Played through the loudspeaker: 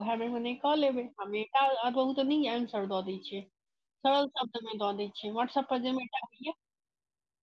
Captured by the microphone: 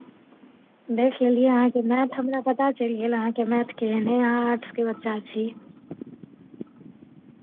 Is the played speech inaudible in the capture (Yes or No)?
Yes